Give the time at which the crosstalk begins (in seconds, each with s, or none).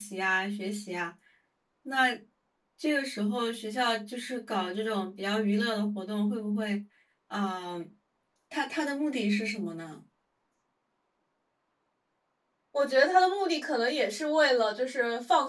none